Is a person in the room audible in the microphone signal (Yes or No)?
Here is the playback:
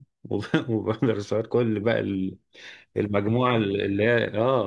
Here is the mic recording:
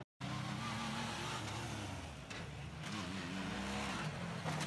No